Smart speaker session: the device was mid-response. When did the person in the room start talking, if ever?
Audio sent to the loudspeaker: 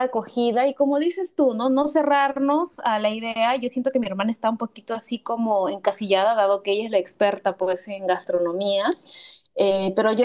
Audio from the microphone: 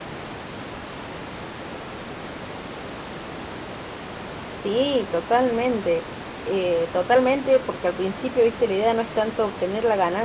5 s

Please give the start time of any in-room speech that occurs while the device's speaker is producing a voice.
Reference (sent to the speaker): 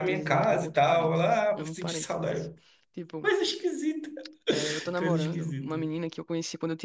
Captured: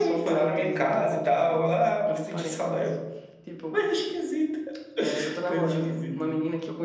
none

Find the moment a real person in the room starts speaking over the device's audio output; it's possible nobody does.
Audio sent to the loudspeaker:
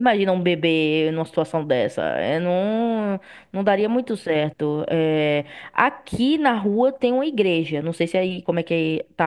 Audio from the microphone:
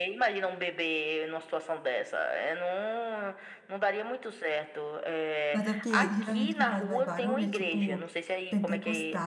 6 s

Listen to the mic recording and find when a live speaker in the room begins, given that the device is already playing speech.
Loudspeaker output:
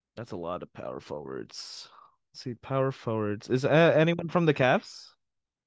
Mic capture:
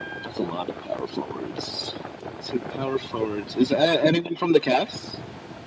none

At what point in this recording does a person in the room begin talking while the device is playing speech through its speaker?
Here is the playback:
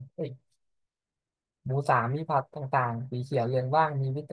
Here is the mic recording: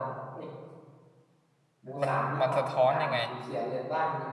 2 s

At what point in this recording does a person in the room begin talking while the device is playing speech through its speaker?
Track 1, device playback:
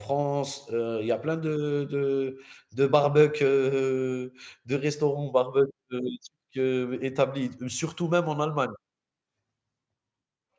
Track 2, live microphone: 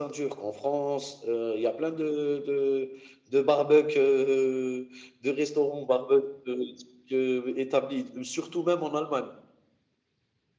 none

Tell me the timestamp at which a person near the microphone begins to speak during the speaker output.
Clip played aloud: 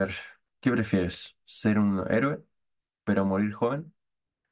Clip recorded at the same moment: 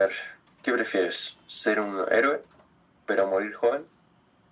none

